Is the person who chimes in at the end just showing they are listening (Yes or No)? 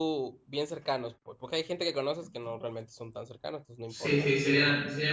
No